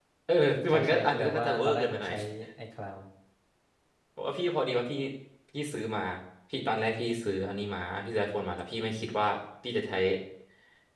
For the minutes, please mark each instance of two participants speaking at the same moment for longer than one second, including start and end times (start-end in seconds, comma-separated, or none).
0.7-2.1